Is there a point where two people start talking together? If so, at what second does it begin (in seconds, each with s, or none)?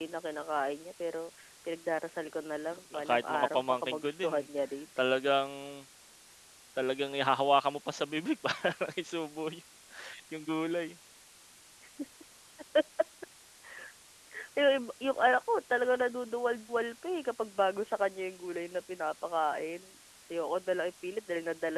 2.9 s